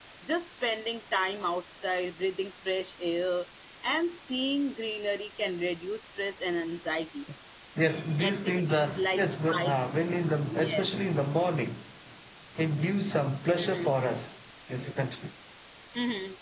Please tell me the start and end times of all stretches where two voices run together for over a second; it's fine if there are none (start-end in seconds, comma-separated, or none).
8.2-9.7